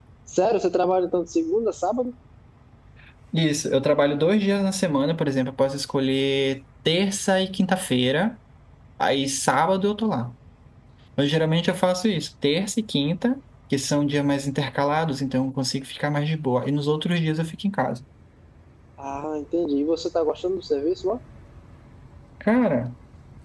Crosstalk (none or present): none